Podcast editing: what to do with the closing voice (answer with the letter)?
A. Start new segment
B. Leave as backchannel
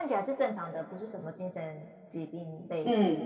A